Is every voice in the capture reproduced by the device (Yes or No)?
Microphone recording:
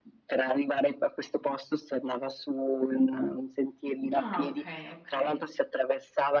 No